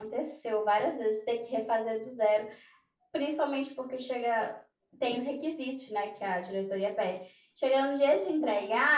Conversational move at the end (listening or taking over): listening